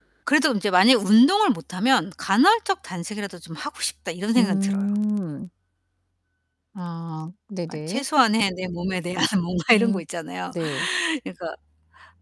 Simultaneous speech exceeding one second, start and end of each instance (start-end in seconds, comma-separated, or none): none